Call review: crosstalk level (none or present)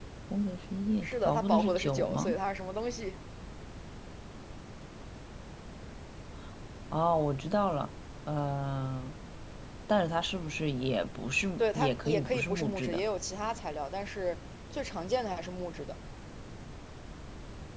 present